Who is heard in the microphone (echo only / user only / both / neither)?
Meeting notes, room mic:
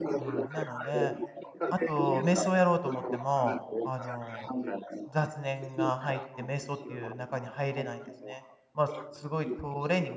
both